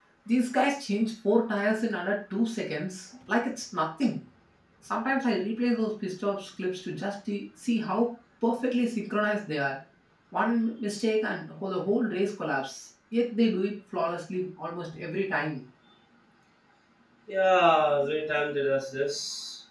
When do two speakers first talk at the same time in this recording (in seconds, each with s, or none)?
none